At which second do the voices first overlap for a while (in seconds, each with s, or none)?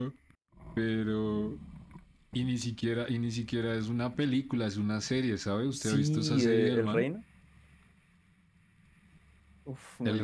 5.7 s